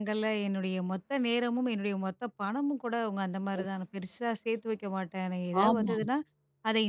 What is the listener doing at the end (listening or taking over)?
listening